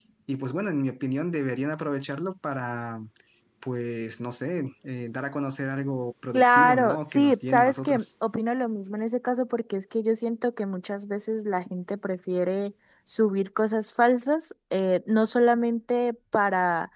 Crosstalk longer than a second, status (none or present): present